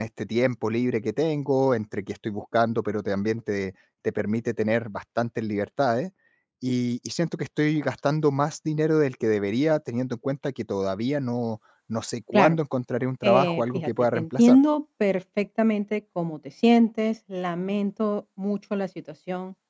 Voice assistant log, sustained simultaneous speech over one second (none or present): present